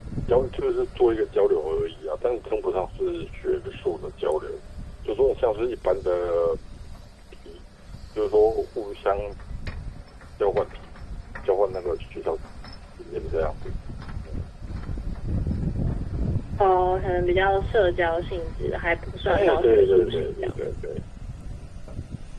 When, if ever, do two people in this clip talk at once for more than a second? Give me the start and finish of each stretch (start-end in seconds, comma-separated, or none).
19.2-20.5